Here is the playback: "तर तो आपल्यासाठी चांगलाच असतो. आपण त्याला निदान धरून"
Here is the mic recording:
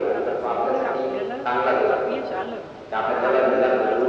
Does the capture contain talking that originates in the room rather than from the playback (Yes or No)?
Yes